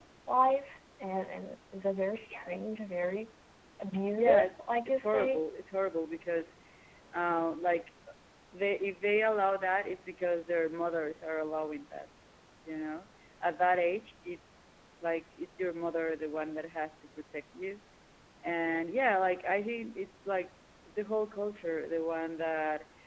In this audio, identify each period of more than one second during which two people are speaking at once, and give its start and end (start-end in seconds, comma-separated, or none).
4.1-5.4